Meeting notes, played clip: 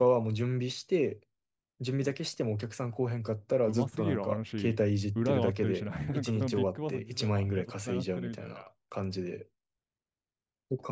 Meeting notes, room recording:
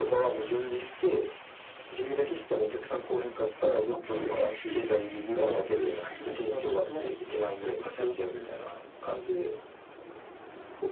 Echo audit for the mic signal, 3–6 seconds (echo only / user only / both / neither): echo only